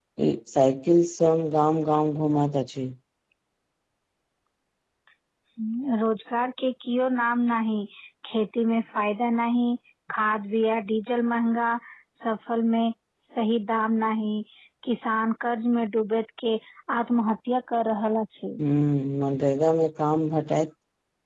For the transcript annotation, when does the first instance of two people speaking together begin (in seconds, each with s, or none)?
none